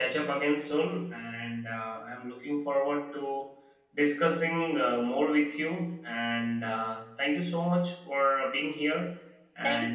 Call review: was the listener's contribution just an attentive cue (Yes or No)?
No